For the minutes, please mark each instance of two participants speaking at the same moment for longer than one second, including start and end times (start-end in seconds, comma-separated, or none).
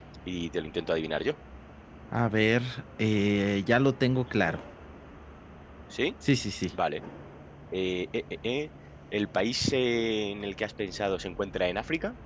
none